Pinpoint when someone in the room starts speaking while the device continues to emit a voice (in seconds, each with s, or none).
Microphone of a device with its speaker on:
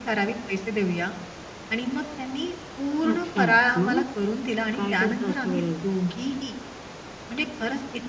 3.0 s